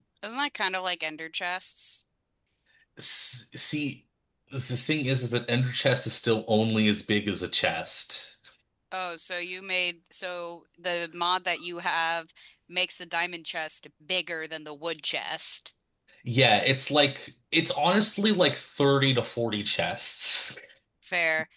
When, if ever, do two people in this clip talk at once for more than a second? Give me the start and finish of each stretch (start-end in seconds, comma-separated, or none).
none